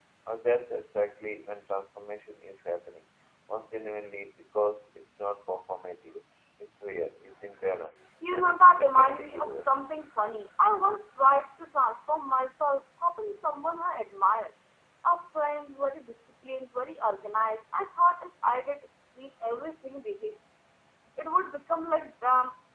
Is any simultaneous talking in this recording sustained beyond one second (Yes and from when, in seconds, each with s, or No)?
Yes, from 8.2 s